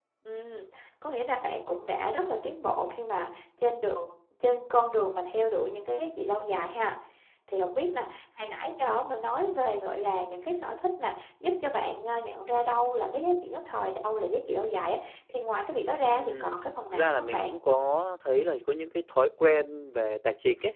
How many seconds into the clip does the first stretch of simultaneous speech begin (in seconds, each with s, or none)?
16.0 s